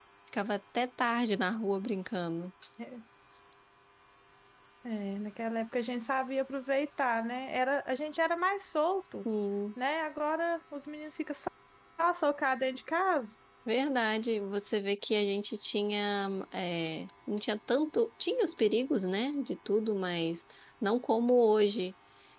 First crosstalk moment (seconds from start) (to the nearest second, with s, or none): none